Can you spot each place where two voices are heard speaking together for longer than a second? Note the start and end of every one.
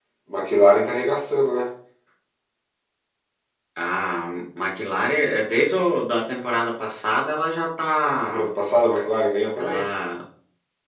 none

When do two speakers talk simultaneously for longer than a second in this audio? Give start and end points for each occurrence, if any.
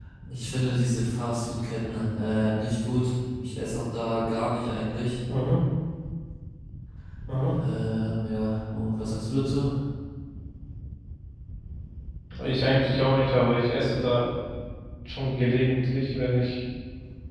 none

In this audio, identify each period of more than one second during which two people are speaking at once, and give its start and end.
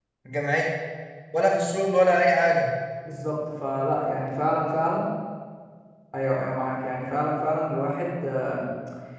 none

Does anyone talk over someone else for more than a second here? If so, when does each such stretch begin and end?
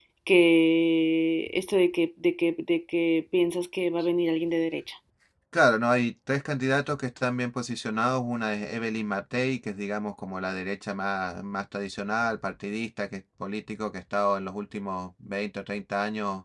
none

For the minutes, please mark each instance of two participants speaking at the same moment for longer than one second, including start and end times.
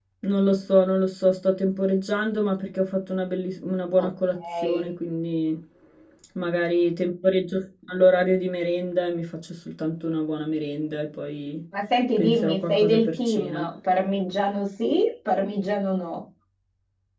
12.2-13.6

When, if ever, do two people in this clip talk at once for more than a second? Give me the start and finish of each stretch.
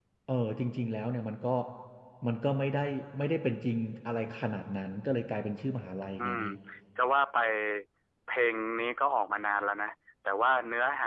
none

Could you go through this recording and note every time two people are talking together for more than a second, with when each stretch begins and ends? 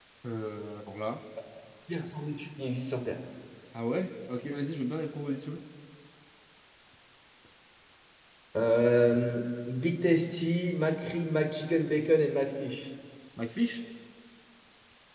none

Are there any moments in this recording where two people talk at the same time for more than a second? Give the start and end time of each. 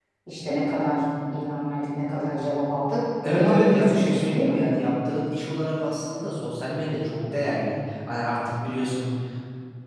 3.2-4.6

